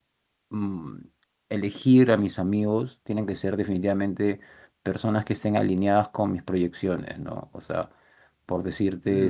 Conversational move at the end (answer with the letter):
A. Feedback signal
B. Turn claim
A